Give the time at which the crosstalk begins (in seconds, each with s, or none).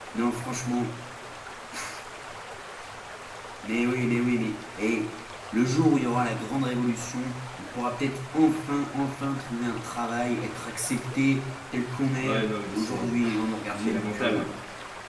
12.2 s